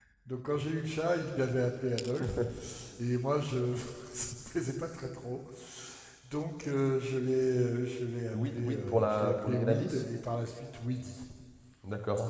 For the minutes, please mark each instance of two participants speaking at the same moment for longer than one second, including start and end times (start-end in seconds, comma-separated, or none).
8.3-10.0